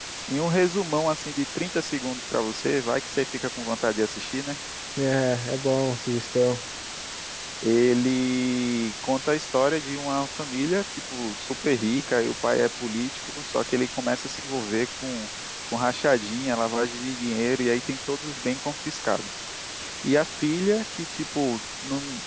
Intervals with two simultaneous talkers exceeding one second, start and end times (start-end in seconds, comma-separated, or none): none